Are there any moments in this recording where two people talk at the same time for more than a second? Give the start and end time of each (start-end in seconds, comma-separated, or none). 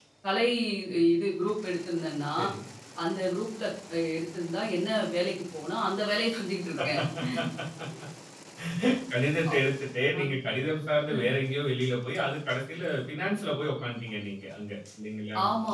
none